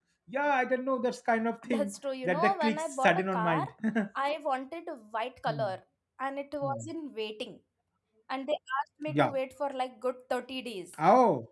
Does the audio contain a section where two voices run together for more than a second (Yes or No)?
Yes